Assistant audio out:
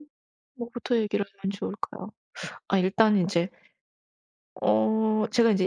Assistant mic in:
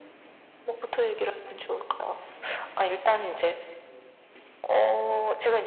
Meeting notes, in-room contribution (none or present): none